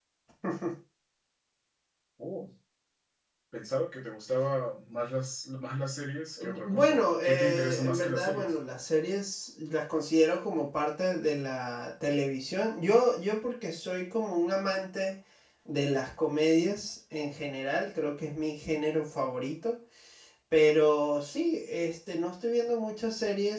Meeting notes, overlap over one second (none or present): present